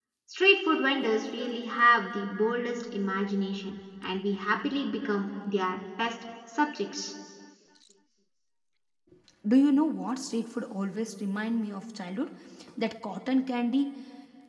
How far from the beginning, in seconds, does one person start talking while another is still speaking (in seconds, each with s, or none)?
none